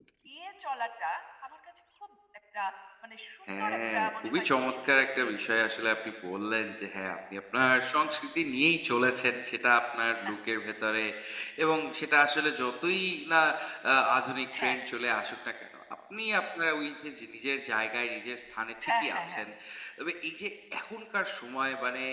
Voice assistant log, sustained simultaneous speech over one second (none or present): present